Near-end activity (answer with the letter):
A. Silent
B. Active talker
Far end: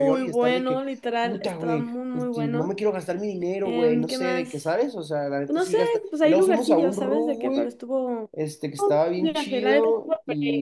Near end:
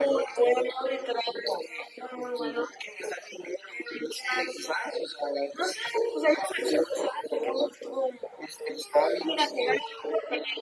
A